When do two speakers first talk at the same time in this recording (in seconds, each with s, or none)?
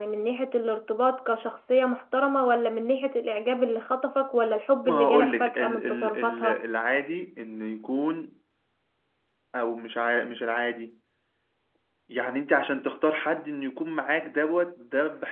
4.8 s